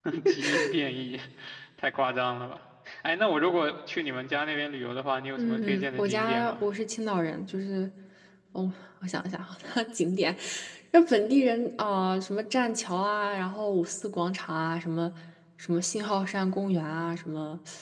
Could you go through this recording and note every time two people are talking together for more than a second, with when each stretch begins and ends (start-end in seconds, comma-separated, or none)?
5.4-6.6